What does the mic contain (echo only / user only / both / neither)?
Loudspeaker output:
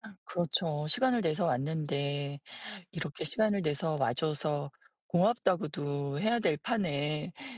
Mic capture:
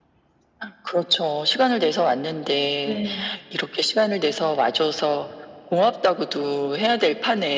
both